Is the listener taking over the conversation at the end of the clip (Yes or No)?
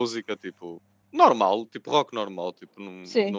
No